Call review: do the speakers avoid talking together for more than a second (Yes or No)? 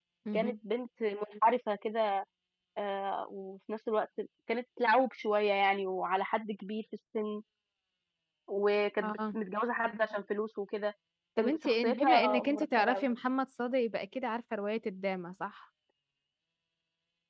No